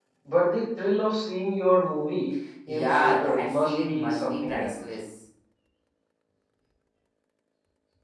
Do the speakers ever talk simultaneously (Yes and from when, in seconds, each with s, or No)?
Yes, from 2.7 s